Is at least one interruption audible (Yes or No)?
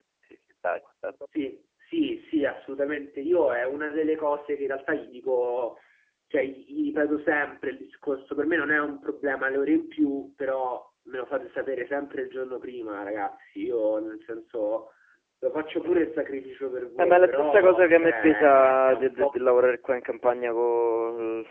Yes